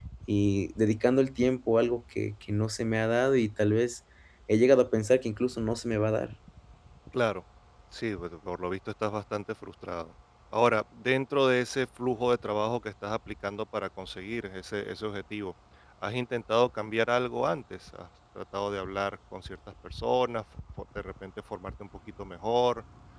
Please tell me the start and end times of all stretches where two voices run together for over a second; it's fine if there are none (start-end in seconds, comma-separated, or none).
none